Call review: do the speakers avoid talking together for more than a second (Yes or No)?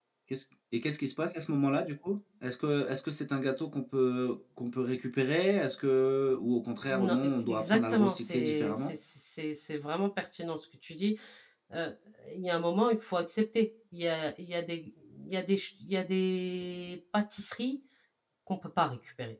No